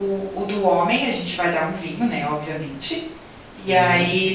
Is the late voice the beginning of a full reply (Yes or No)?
No